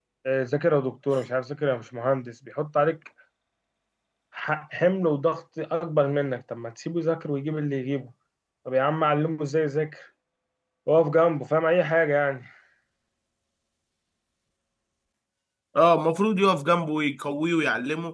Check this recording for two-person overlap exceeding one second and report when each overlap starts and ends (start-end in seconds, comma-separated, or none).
none